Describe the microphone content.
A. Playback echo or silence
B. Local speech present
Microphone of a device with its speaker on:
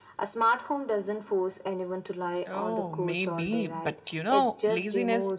B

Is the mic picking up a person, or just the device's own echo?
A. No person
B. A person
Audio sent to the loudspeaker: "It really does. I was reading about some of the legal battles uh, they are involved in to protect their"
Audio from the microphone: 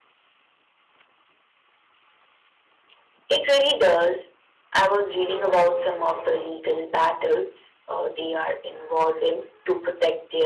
A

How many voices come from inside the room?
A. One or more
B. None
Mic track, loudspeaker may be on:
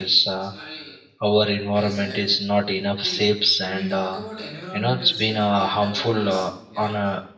A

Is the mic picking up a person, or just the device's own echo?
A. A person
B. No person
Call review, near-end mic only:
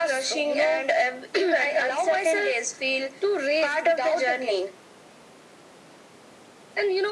B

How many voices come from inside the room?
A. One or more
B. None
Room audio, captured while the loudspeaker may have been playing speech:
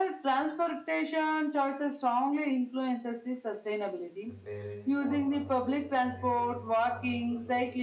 A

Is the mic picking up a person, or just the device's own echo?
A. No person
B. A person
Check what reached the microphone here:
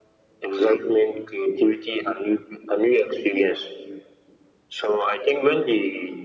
A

